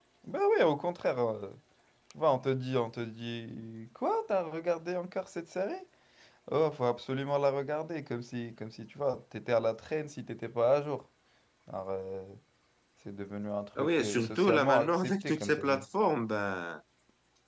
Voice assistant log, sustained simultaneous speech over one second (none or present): present